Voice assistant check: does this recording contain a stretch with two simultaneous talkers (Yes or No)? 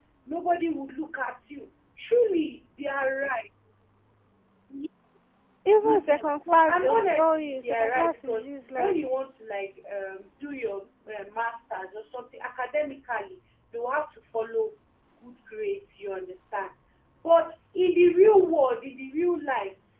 Yes